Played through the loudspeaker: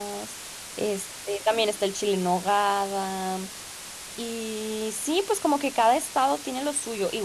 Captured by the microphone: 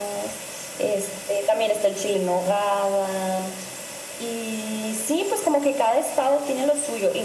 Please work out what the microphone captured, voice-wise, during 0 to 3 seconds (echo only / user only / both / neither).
echo only